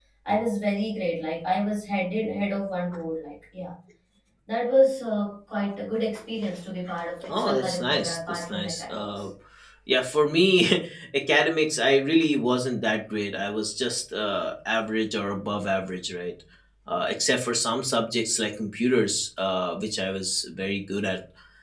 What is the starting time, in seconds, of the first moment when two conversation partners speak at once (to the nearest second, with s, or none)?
7 s